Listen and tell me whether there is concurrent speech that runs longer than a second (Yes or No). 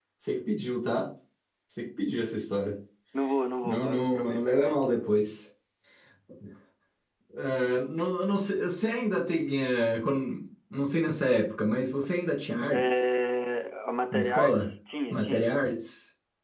Yes